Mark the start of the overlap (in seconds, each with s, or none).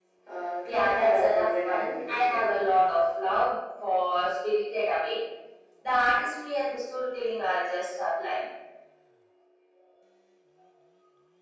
0.7 s